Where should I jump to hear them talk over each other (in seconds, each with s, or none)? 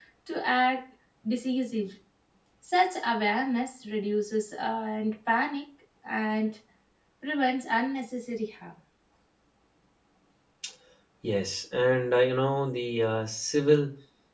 none